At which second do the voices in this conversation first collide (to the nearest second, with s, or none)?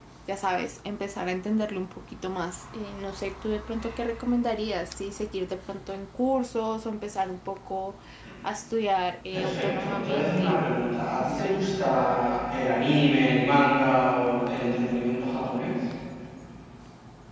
9 s